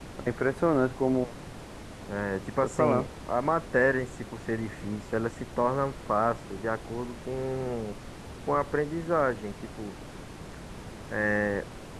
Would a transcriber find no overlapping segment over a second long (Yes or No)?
Yes